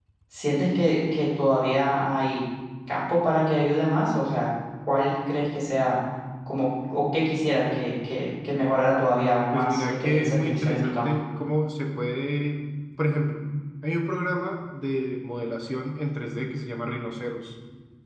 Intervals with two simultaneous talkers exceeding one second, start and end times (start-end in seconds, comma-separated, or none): 9.5-11.1